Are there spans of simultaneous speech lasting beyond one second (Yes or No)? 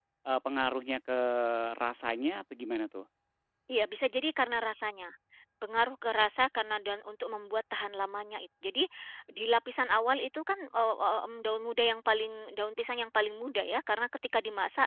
No